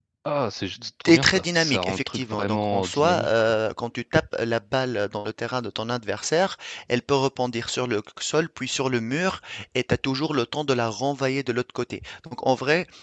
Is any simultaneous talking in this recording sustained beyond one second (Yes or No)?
Yes